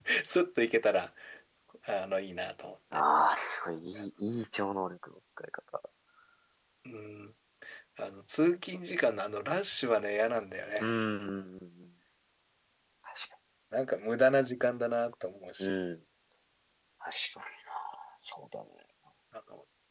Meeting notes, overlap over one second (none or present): none